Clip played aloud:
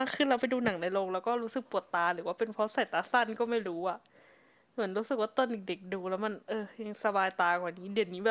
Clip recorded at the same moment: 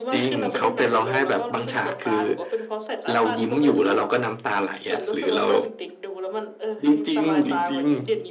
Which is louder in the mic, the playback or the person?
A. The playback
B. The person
B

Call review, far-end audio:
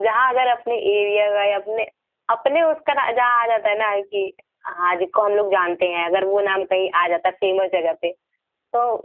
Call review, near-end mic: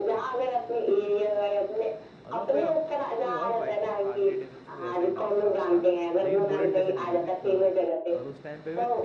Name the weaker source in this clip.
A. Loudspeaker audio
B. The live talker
B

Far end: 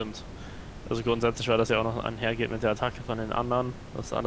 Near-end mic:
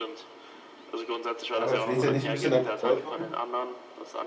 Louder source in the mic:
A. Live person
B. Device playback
A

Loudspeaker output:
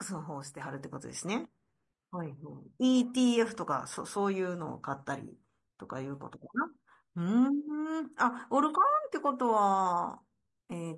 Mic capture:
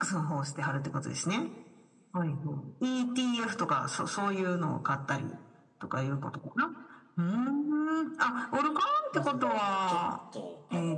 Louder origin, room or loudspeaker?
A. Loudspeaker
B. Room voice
A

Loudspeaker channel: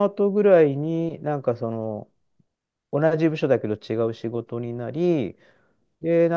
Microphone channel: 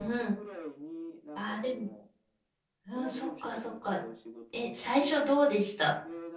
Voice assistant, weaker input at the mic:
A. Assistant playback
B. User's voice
A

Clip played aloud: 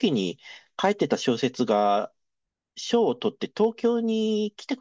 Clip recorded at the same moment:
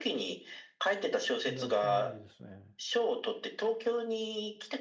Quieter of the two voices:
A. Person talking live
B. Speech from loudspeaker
A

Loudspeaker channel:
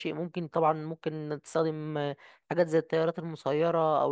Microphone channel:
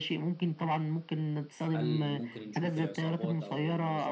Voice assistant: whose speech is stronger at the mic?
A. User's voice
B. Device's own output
B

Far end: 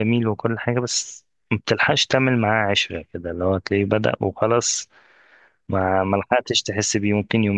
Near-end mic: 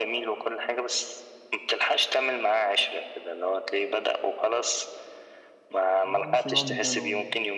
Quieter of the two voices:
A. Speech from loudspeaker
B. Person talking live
B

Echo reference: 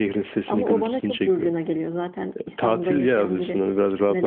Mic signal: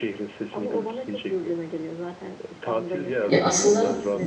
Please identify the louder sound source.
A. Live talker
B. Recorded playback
A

